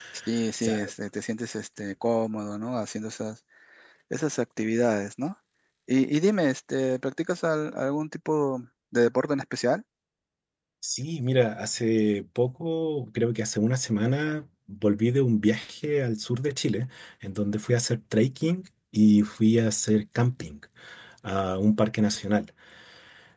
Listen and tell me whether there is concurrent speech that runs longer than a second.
No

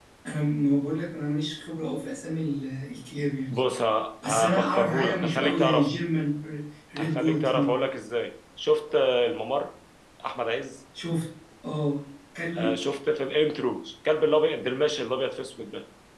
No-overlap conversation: No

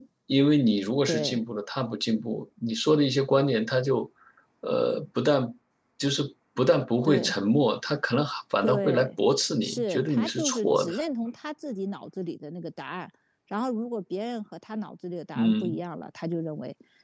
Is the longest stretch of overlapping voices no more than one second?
No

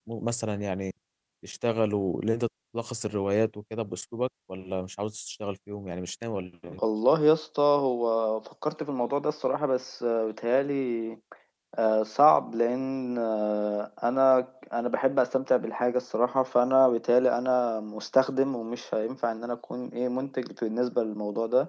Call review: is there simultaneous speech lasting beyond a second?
No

